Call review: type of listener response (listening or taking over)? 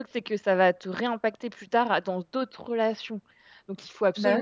listening